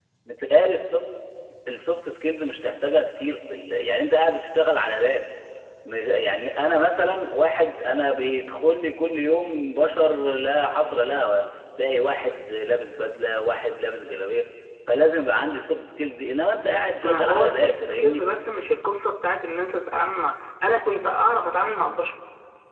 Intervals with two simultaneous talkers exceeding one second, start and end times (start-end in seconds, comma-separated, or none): 17.0-18.2